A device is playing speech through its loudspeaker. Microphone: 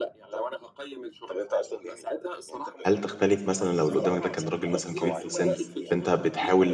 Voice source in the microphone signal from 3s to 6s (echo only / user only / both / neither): both